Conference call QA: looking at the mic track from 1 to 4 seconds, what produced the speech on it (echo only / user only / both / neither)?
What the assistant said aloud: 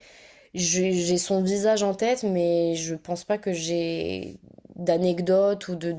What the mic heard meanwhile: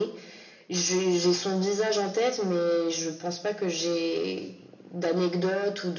echo only